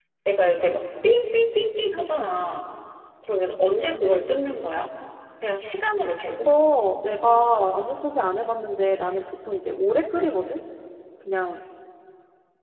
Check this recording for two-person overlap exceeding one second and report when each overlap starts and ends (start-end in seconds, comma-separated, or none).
none